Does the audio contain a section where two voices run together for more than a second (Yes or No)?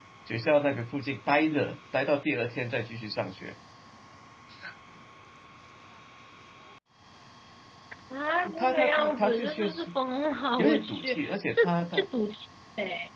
Yes